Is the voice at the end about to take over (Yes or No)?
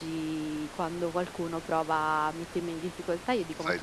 No